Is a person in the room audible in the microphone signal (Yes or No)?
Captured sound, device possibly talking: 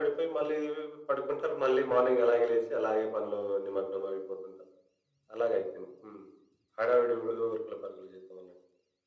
No